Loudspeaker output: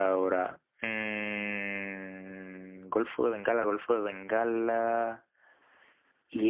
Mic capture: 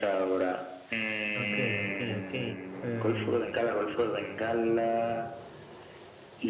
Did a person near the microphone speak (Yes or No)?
Yes